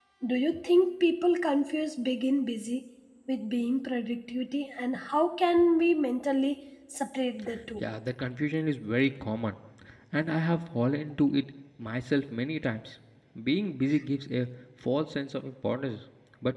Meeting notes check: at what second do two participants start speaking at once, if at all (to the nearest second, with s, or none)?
none